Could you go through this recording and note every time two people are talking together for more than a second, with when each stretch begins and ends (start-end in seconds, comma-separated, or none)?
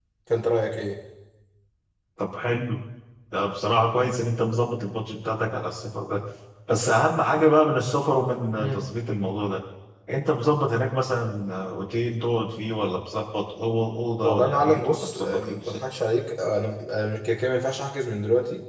14.2-15.8